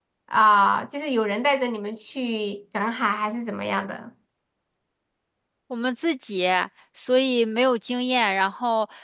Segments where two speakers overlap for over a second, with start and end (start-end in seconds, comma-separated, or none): none